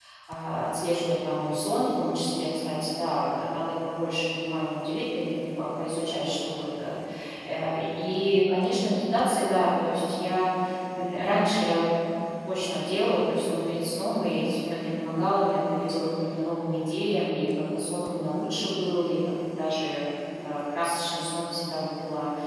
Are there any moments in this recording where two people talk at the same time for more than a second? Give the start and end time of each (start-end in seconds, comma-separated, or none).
none